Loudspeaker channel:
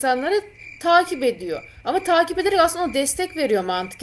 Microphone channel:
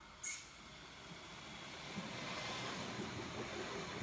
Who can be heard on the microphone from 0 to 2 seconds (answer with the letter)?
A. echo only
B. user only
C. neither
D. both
C